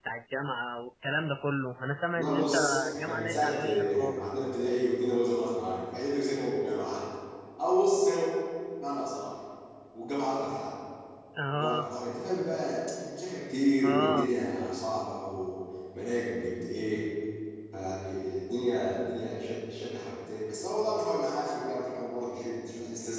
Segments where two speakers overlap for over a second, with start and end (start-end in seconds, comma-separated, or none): 2.1-4.4